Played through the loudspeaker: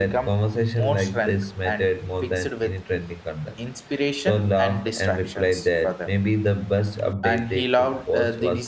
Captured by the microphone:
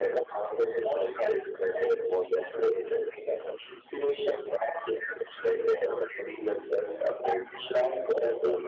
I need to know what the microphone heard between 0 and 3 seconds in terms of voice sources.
echo only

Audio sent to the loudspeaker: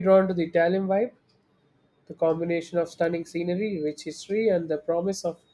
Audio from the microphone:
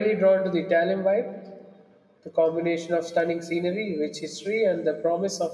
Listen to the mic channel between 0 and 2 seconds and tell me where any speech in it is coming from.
echo only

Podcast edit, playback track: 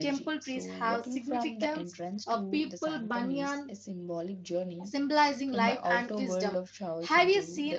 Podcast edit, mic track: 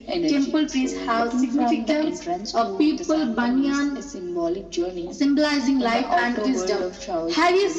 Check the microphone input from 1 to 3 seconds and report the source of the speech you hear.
echo only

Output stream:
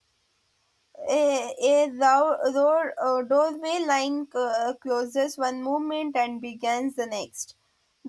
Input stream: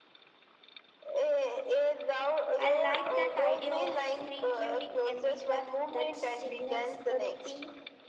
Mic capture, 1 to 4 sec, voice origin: both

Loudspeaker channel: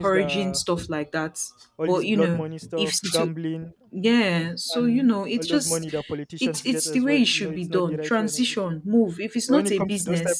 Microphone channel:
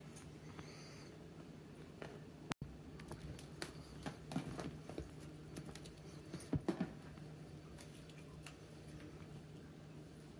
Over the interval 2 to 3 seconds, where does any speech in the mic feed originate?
neither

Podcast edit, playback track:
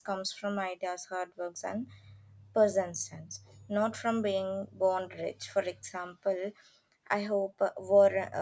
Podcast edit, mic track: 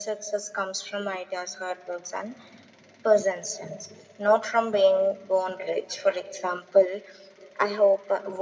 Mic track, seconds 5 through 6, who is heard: echo only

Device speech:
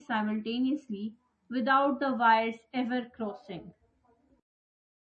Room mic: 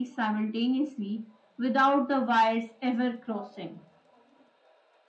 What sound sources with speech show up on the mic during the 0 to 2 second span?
echo only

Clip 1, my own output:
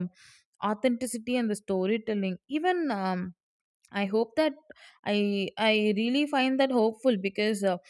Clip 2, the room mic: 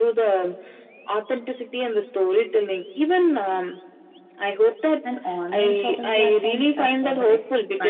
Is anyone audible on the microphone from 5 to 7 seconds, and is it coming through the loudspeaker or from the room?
both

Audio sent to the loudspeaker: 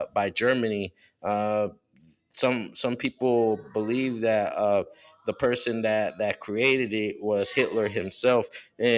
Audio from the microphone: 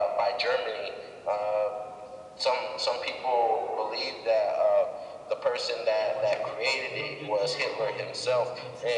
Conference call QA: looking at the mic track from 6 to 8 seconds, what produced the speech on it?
both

